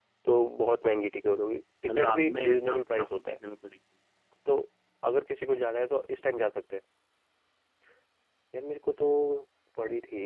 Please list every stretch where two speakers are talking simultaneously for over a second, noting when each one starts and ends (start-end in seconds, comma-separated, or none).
2.0-3.4